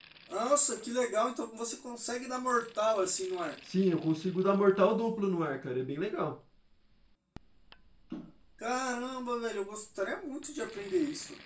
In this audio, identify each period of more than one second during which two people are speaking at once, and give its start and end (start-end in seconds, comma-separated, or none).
none